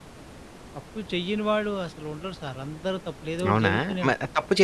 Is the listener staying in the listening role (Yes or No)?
No